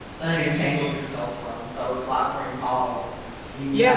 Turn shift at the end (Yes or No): Yes